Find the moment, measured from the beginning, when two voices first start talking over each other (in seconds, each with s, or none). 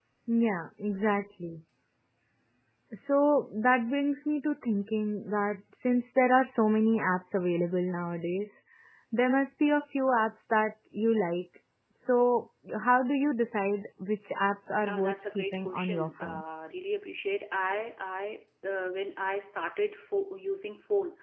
14.8 s